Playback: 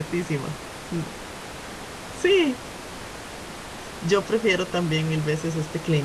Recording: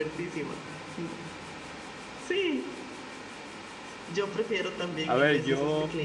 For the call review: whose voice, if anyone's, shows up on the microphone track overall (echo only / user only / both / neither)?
both